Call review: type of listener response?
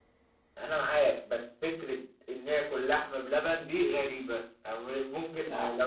listening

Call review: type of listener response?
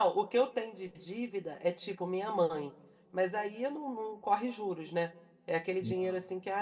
listening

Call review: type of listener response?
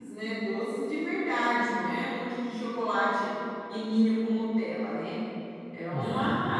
listening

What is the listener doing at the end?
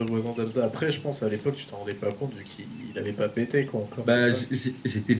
taking over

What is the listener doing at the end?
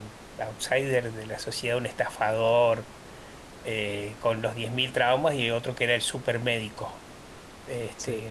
listening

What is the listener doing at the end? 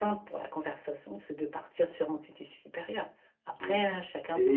taking over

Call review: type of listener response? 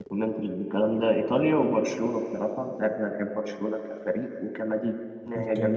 taking over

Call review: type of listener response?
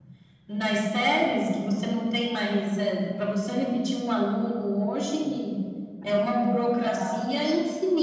listening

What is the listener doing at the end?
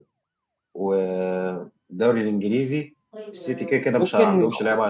taking over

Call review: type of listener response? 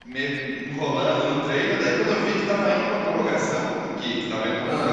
listening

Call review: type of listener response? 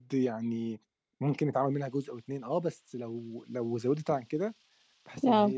listening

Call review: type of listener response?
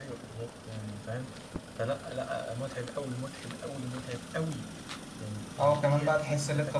taking over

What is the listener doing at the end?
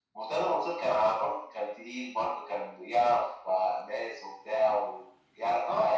taking over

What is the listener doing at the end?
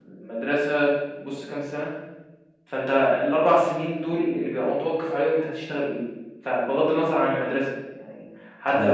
listening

